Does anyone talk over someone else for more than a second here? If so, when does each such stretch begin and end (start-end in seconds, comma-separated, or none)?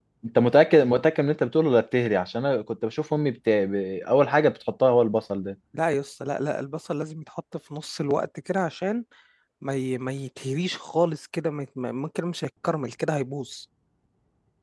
none